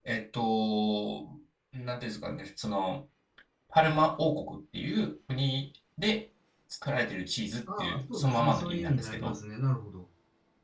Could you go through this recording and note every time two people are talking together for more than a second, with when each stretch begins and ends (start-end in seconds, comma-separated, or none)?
7.7-9.4